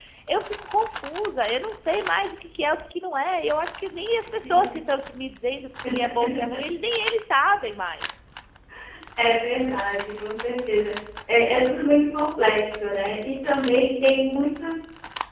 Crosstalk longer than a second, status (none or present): none